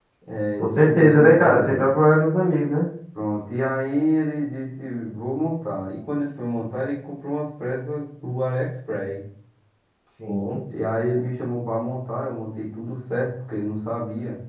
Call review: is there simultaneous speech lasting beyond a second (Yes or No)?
Yes